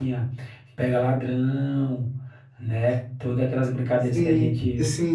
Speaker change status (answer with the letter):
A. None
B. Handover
B